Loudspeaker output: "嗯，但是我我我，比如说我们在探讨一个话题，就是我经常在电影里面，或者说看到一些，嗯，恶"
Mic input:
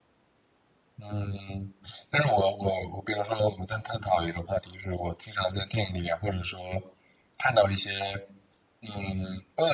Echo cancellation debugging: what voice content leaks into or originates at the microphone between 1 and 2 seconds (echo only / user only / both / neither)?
echo only